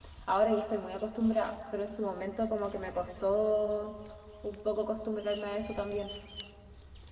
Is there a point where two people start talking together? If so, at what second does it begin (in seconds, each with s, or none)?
none